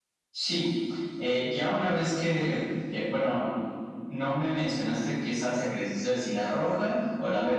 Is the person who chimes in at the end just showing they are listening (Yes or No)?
No